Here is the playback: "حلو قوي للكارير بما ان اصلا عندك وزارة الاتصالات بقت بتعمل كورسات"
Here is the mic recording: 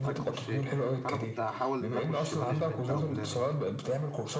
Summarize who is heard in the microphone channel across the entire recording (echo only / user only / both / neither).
both